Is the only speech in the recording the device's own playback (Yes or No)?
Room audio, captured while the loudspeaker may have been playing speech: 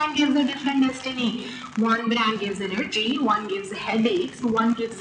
Yes